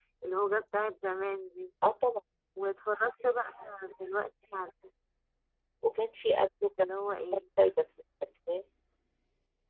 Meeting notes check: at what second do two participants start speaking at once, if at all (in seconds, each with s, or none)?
none